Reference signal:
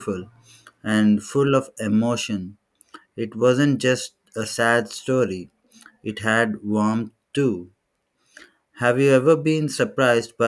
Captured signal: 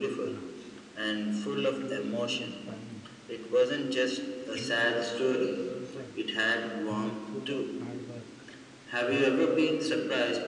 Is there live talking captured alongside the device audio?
Yes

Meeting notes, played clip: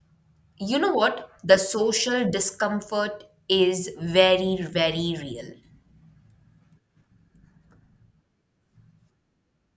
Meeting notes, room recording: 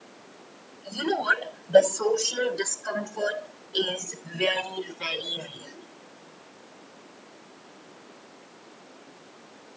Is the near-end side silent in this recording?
Yes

